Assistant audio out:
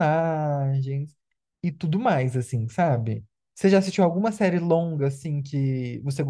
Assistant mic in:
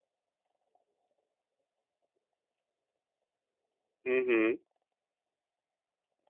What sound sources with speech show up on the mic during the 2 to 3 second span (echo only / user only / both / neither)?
neither